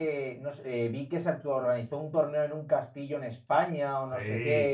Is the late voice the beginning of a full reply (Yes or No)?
No